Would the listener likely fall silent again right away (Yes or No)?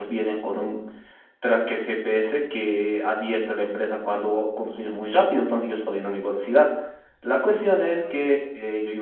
Yes